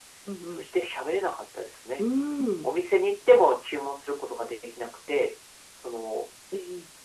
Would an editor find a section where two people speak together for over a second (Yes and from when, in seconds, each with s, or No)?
No